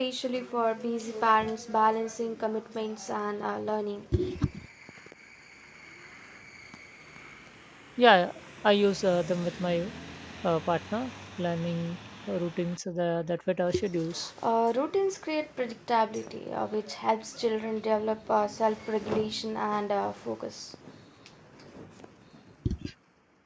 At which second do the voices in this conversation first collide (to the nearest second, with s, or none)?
none